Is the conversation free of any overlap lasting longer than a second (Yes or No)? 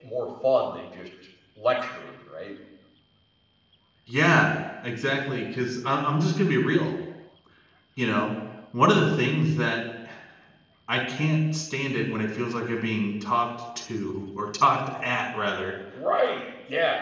Yes